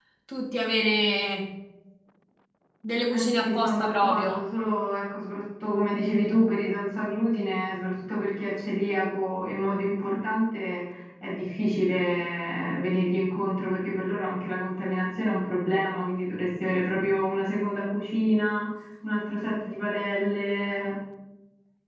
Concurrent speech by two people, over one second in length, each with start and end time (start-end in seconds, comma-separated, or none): 3.1-4.4